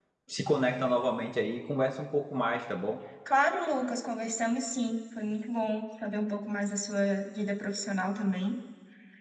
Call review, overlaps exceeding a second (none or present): none